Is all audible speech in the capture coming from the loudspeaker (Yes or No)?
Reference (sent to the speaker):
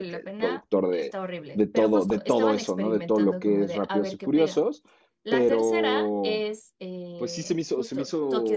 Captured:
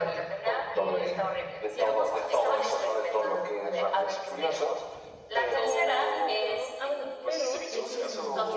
No